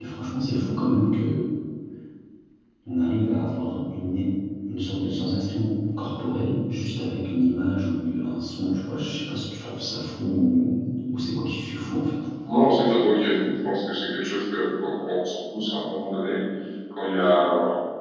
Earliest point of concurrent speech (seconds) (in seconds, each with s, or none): none